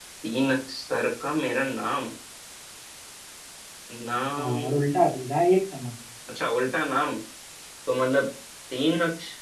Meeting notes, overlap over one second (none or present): none